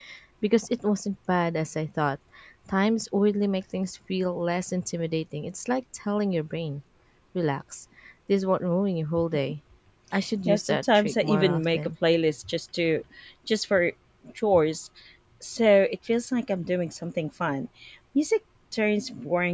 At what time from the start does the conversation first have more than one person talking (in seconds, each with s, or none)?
10.4 s